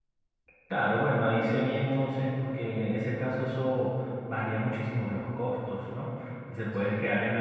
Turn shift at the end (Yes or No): No